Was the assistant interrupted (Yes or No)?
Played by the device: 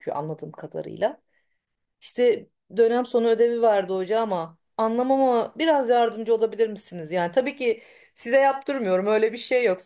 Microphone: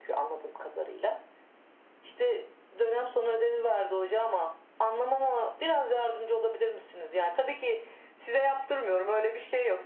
No